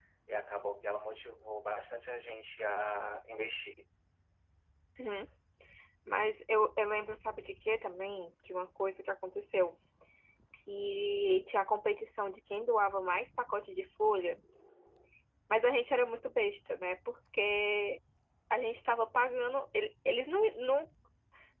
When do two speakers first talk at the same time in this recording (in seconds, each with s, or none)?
none